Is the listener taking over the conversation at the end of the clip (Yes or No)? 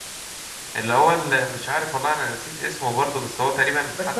Yes